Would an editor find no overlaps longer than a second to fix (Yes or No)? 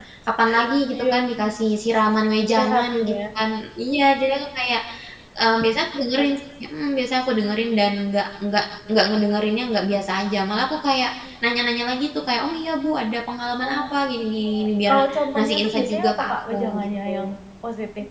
No